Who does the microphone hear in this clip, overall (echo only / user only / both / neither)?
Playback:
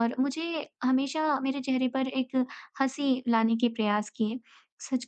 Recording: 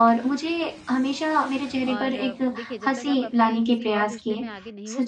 both